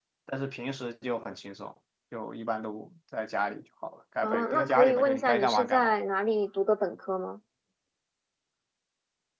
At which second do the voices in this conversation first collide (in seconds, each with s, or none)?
4.2 s